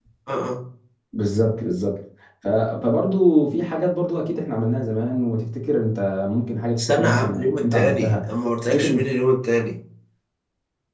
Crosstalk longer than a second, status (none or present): present